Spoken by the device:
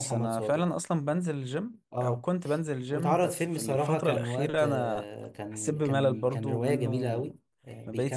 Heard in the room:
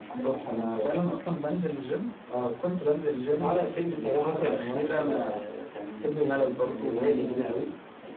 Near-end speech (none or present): none